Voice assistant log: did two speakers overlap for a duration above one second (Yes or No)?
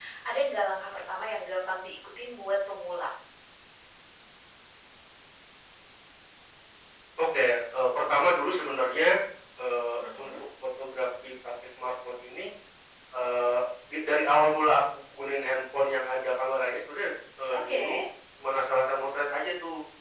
No